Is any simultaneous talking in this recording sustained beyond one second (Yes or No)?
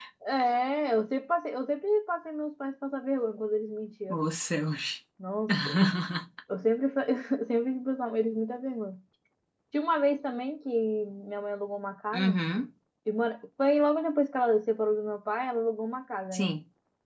No